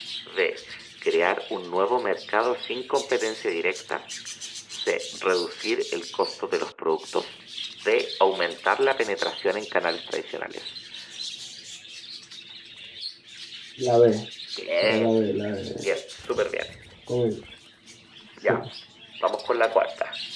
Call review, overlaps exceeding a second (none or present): none